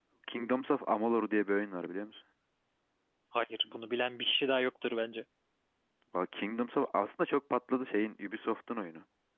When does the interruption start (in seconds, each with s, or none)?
none